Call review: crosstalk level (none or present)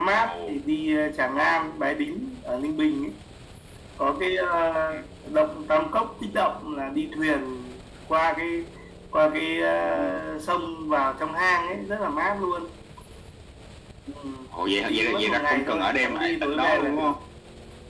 present